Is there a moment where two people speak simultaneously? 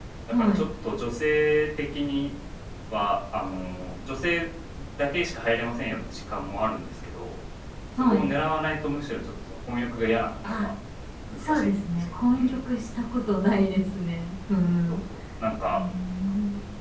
Yes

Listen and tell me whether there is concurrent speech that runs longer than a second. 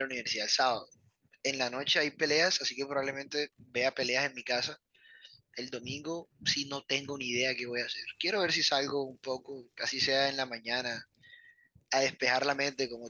No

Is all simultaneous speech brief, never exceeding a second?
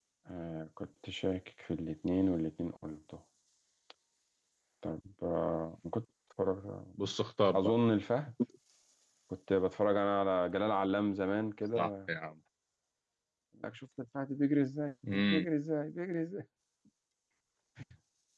Yes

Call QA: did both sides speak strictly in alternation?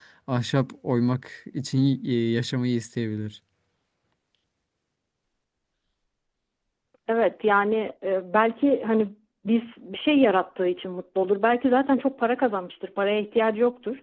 Yes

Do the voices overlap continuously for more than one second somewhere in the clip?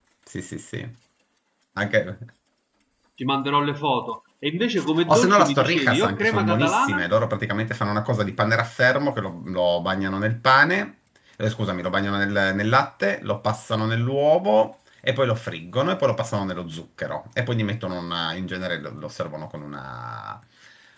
Yes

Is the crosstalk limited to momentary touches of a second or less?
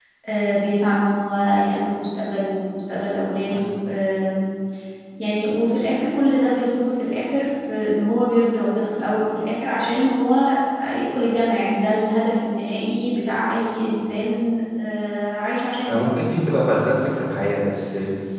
Yes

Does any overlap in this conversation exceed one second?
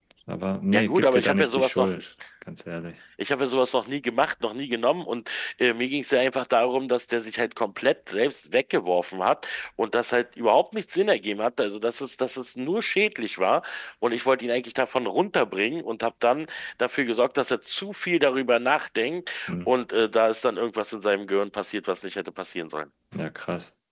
Yes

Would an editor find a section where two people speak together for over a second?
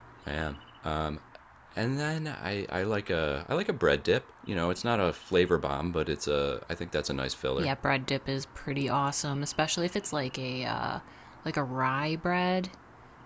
No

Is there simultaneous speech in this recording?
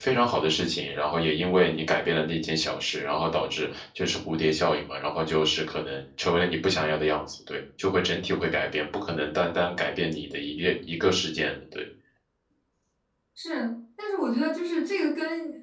No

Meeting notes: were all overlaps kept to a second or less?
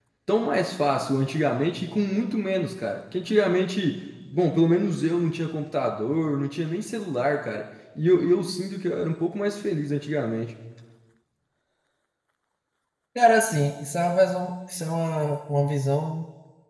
Yes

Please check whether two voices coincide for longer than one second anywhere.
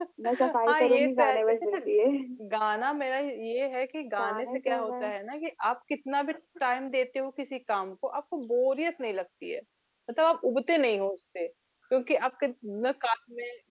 Yes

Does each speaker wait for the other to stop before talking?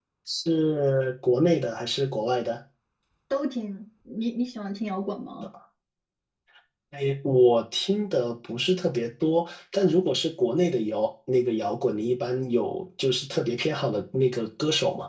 Yes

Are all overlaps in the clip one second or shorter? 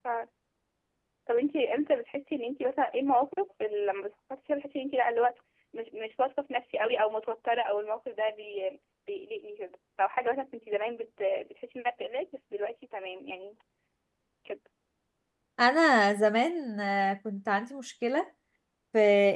Yes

